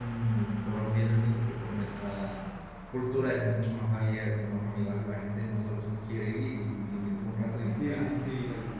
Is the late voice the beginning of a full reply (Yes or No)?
Yes